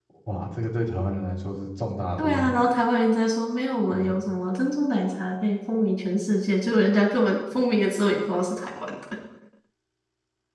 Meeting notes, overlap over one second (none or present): none